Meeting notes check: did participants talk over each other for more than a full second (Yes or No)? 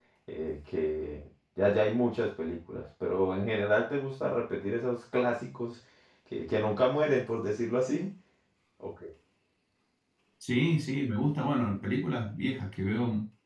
No